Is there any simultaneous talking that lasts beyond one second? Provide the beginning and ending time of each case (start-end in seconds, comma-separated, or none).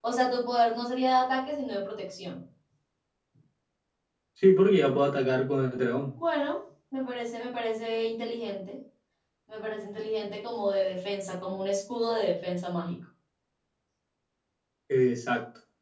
none